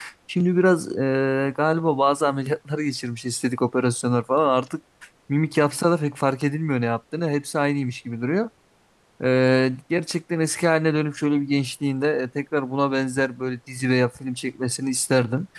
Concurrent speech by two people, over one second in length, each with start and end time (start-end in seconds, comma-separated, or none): none